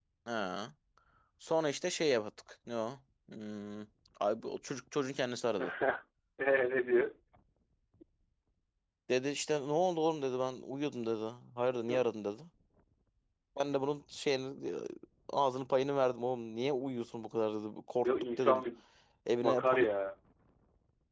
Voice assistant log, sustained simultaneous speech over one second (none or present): none